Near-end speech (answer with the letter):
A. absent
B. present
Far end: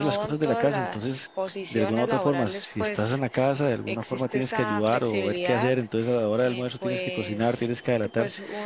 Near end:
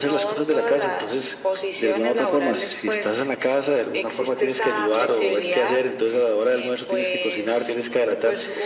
A